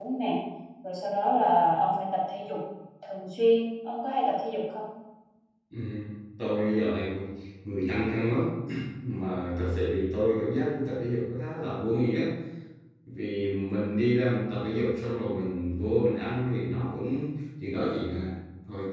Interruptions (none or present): none